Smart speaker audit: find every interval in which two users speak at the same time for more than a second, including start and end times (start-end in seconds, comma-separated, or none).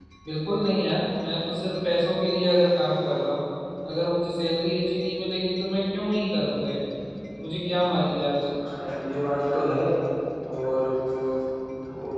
none